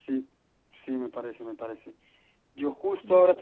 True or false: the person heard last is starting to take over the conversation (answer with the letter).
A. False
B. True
A